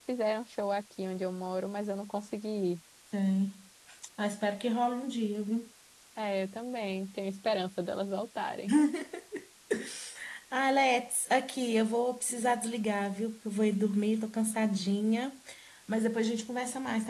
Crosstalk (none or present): none